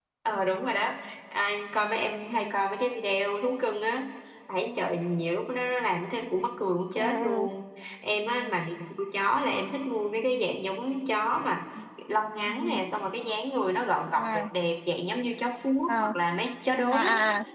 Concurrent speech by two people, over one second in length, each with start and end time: none

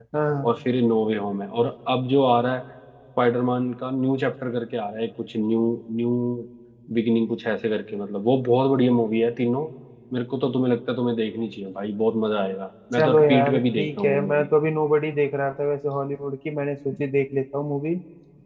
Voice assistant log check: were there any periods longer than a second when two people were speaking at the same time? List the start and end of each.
12.9-14.5

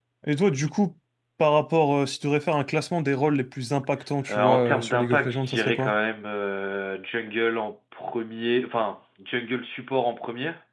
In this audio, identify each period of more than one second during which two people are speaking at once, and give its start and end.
4.3-5.9

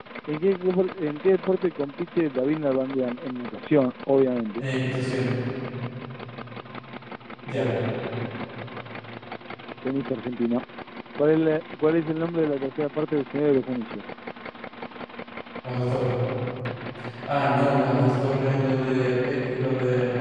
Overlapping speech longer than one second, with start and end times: none

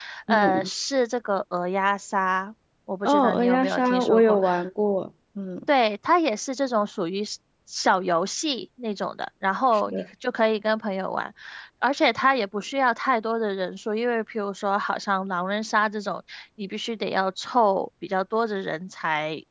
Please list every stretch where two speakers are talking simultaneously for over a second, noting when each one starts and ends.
3.0-4.4

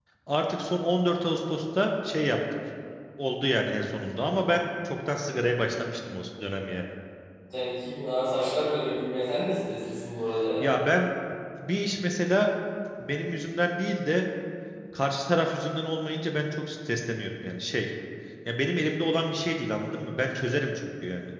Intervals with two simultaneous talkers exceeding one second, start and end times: none

